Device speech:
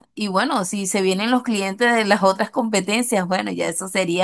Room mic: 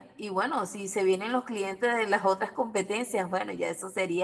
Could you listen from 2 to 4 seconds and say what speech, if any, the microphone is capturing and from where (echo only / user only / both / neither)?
echo only